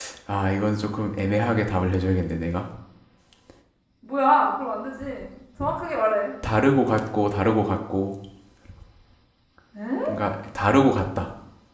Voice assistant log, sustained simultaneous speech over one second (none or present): none